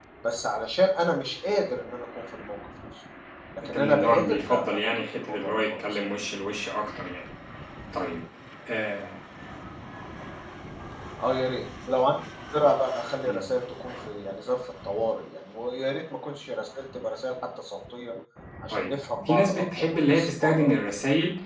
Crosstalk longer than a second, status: present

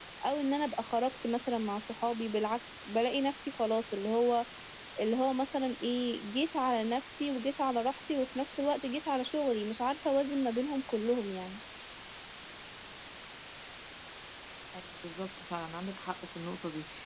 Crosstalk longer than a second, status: none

